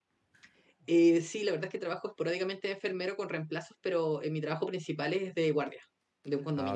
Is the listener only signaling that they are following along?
No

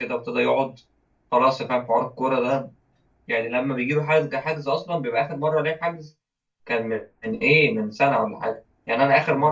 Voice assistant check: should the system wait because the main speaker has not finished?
Yes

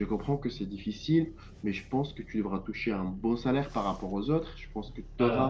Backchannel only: Yes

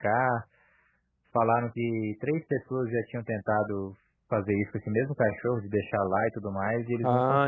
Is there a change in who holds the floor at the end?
Yes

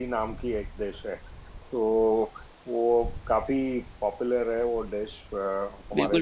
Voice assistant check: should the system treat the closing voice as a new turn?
Yes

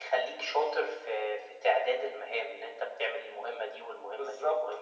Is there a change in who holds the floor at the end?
Yes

